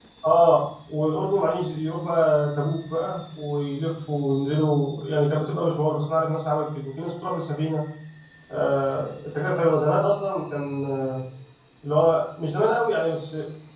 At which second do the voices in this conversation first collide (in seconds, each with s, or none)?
none